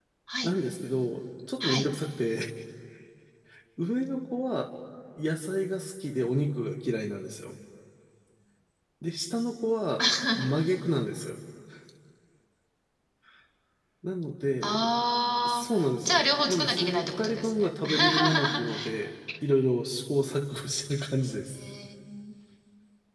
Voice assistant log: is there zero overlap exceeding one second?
No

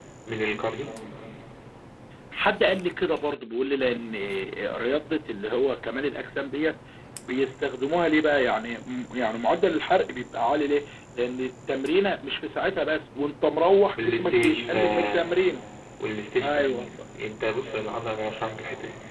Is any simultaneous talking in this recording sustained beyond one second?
Yes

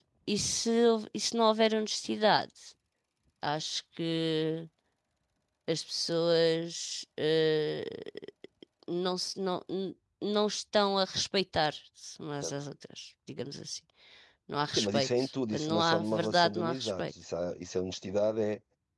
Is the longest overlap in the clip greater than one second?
Yes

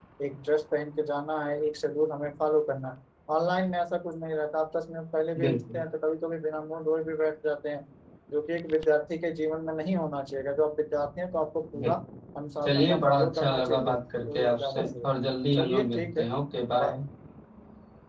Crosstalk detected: Yes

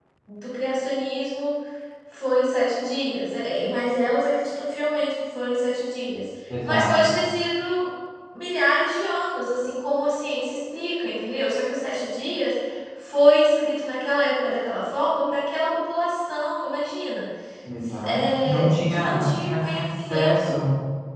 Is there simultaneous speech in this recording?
Yes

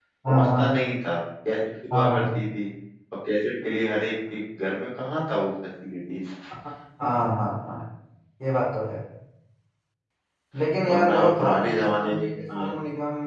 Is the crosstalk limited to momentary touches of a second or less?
No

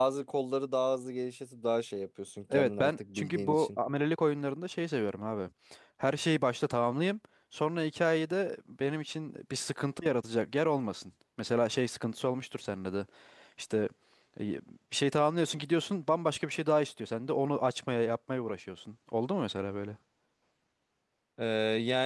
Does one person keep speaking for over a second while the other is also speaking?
Yes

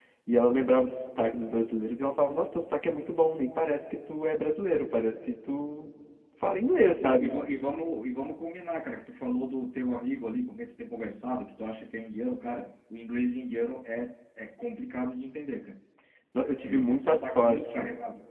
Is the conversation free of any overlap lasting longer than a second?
No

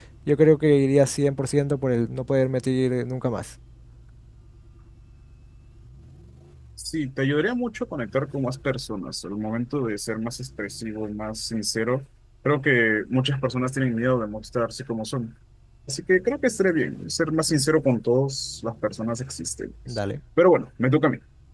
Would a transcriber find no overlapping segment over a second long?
Yes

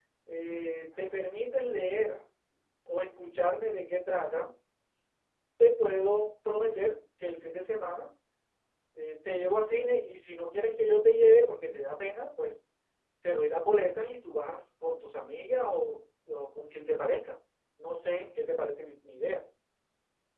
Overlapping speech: No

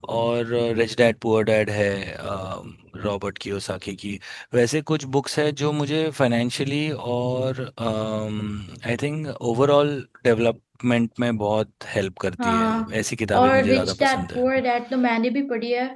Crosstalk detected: Yes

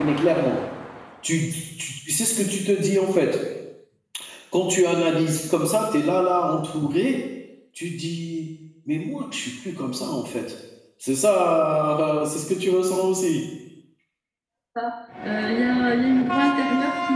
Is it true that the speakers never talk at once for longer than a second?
Yes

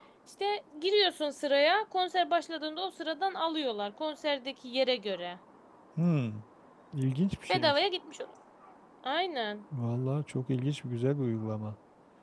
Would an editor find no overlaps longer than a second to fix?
Yes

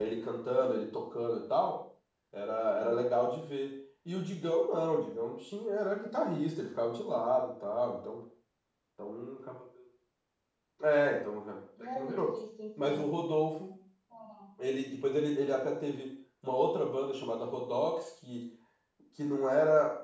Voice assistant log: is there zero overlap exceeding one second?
Yes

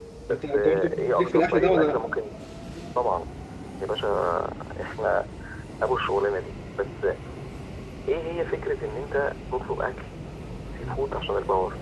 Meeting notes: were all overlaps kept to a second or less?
No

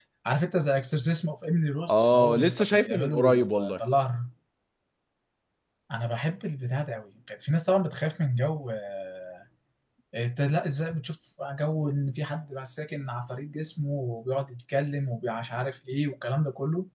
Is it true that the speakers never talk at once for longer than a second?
No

